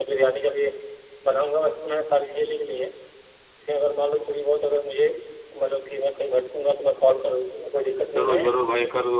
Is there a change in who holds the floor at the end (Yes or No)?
Yes